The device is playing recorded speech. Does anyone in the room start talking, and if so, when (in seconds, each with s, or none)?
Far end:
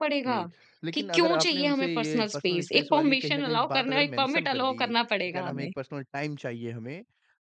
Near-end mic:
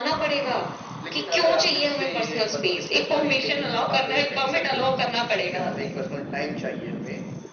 none